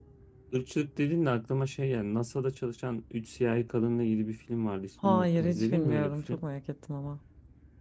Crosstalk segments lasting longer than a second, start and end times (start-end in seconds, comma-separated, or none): 5.0-6.4